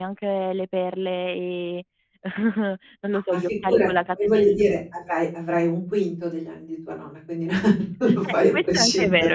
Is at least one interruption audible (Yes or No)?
Yes